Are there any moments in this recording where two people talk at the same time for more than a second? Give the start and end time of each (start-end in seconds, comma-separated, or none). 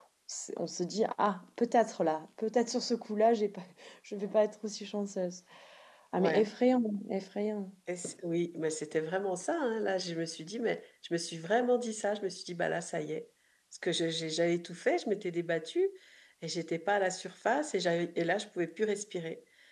none